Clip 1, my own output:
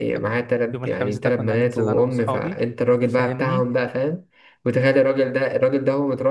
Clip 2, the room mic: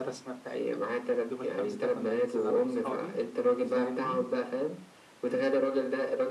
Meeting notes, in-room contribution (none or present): none